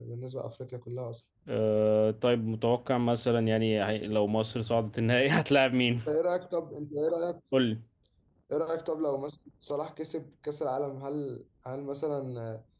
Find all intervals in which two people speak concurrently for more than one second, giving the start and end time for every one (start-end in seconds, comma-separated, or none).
none